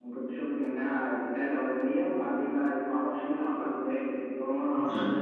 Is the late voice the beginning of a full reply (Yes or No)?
No